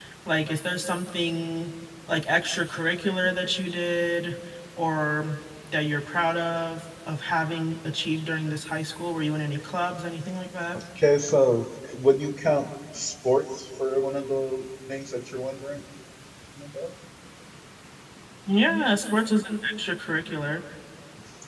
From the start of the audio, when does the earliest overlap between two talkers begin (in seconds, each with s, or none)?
none